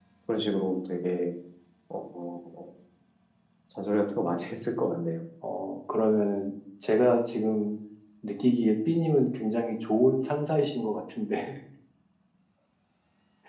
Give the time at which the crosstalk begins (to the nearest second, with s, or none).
none